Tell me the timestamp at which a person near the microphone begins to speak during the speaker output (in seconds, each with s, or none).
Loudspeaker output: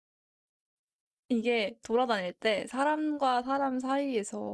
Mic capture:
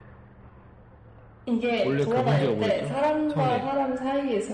1.8 s